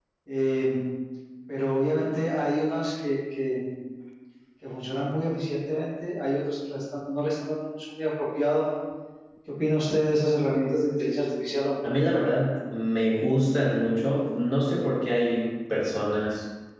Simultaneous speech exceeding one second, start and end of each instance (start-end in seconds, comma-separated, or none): none